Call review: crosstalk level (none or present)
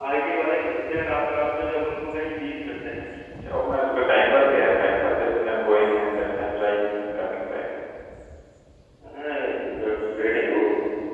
none